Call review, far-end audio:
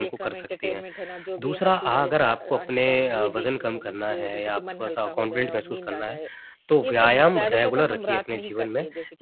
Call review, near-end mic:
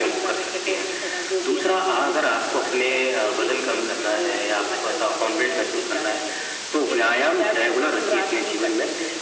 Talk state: echo only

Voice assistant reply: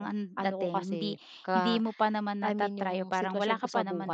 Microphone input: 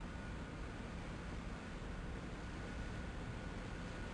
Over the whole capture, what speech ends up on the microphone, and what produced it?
neither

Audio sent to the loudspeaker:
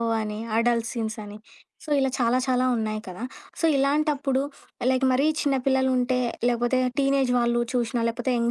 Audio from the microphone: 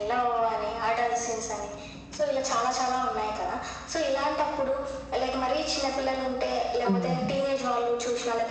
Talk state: both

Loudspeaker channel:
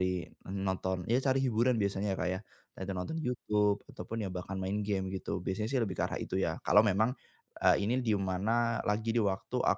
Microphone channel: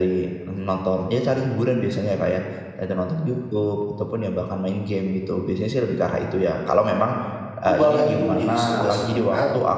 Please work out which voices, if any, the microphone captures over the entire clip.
both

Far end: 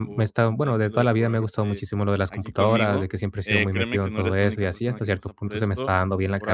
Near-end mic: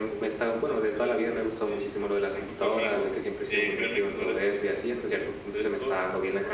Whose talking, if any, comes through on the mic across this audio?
echo only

